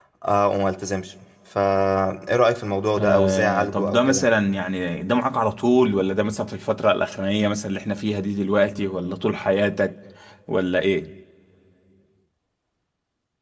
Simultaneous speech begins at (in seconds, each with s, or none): 3.0 s